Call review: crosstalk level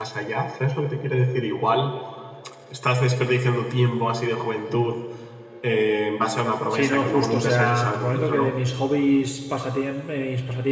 present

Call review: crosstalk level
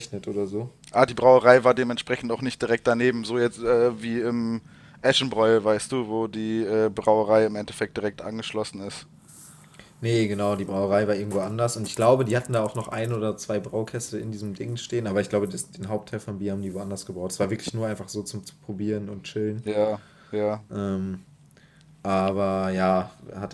none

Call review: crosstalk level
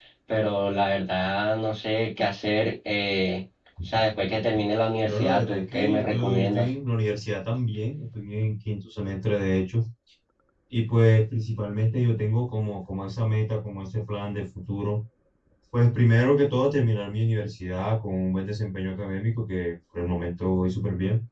present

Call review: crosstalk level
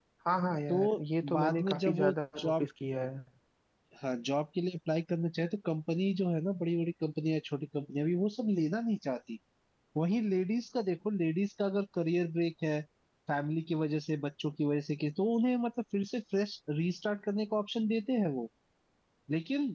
present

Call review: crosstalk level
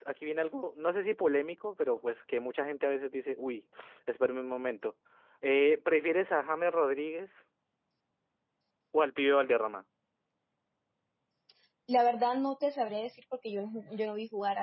none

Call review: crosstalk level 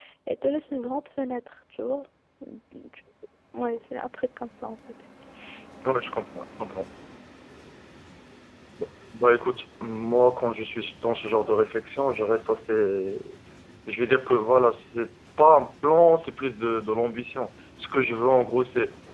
none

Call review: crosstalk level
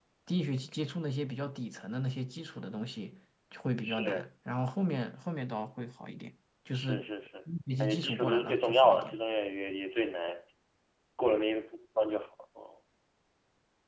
present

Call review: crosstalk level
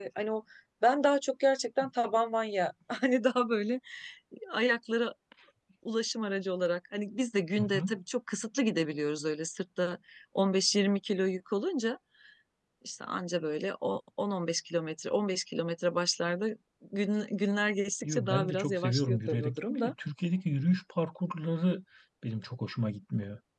present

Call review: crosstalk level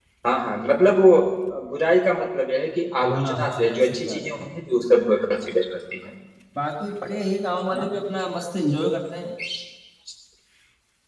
present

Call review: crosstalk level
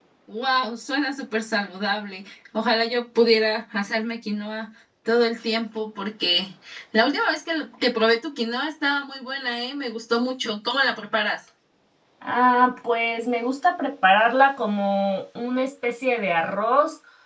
none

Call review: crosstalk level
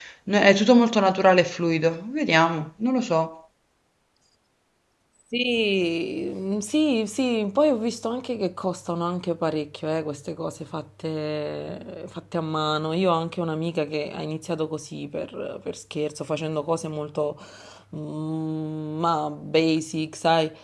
none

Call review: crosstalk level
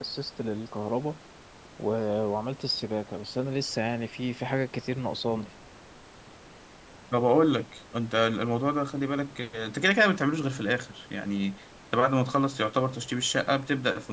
none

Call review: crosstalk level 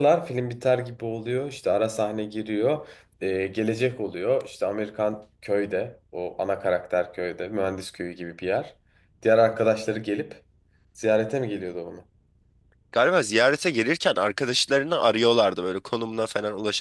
none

